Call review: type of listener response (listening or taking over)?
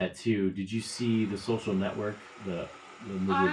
taking over